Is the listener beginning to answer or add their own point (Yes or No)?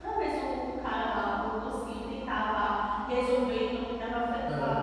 No